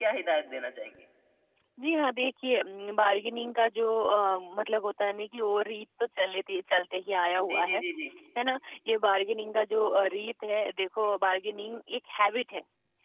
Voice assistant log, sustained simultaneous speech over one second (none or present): none